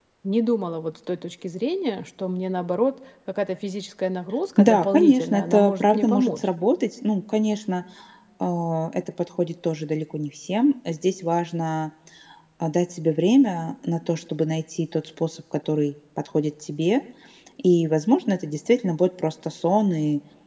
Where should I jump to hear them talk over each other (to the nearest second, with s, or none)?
5 s